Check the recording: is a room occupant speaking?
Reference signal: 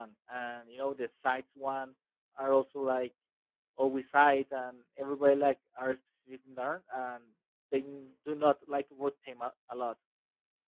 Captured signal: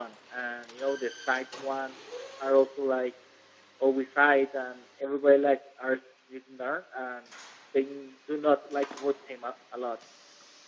No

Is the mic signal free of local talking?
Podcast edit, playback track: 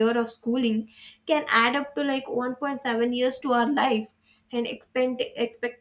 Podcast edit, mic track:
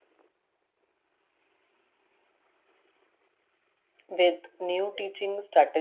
No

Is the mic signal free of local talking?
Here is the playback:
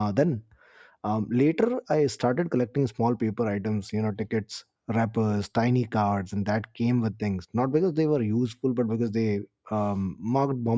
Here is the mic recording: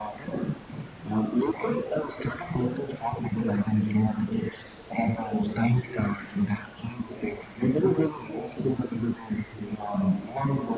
Yes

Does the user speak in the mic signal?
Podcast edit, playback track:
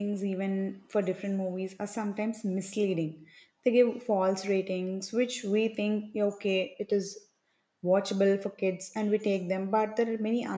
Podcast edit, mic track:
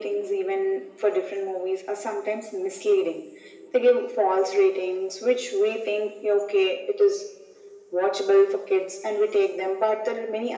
No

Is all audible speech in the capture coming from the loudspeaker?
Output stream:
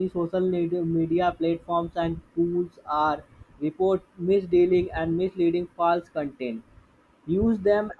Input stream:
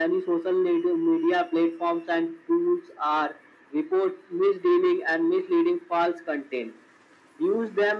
Yes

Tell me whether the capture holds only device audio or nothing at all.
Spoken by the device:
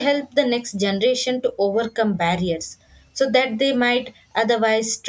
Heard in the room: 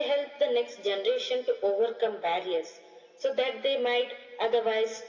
Yes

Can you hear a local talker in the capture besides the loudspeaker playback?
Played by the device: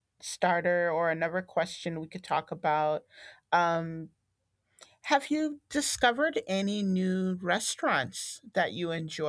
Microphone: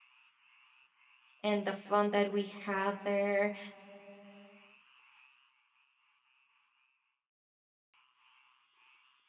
Yes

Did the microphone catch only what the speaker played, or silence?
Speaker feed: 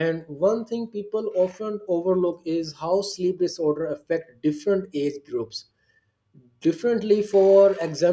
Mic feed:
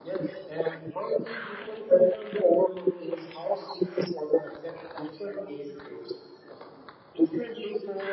Yes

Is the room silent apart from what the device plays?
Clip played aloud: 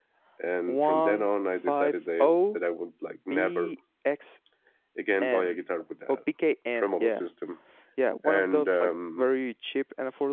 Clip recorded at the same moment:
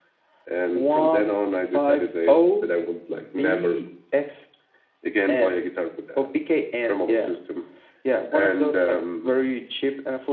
Yes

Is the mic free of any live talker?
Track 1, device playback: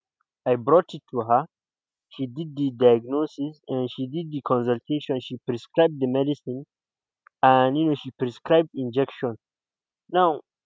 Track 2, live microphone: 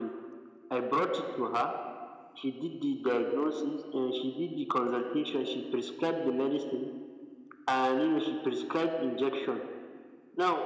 Yes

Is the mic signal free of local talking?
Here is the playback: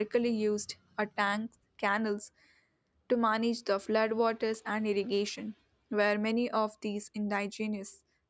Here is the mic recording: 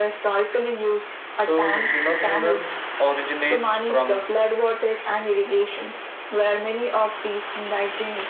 No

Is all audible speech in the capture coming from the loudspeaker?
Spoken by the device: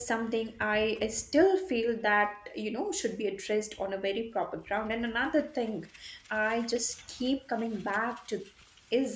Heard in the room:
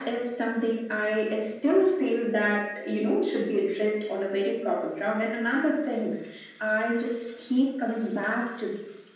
Yes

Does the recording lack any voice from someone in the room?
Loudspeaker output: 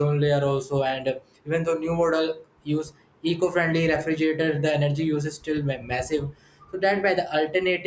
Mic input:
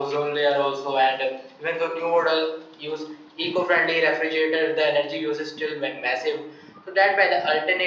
Yes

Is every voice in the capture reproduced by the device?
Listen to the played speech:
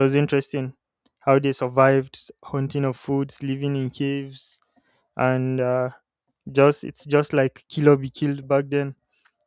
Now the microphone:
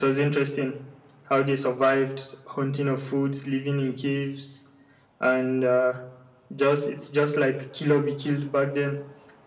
Yes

